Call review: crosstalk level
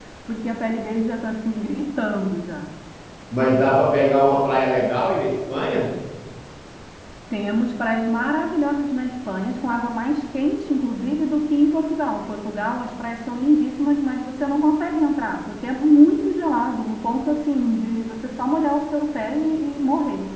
none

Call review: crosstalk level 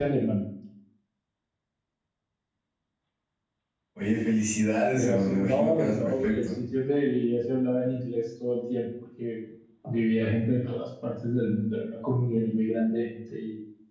present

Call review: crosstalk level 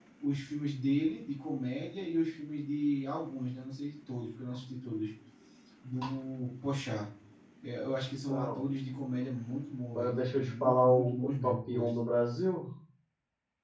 present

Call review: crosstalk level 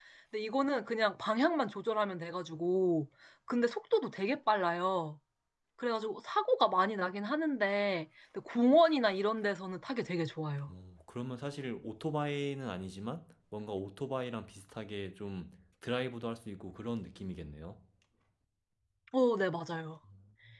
none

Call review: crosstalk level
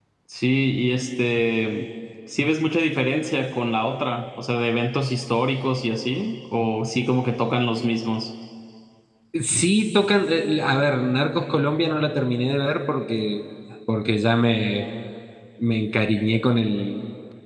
none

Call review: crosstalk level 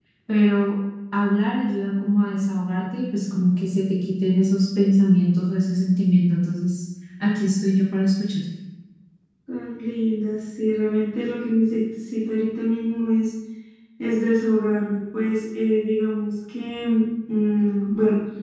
none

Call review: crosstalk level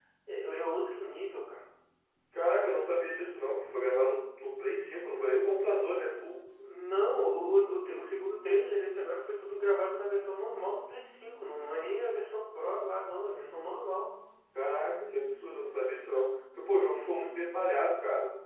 none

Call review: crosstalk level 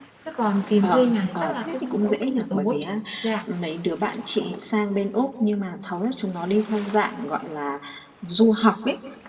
present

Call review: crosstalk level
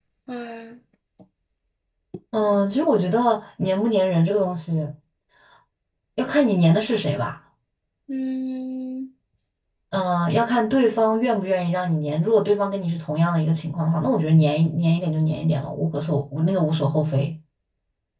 none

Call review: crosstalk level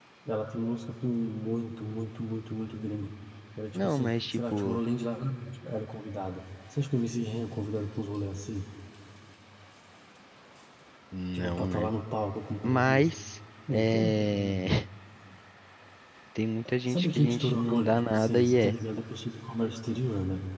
present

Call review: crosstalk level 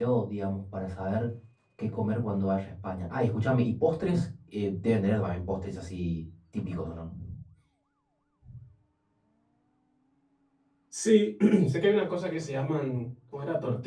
none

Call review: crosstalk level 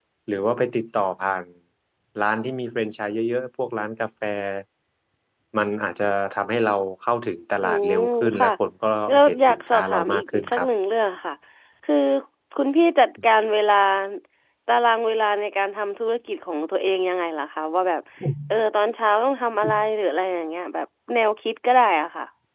present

